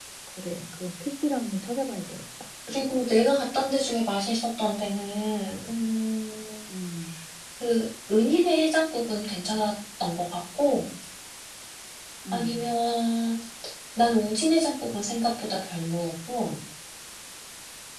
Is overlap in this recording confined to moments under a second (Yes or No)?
Yes